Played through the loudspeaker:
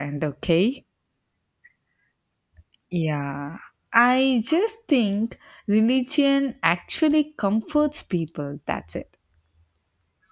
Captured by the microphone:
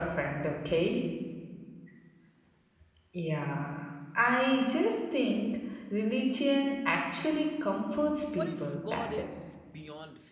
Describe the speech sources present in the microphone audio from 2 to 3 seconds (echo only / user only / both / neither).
neither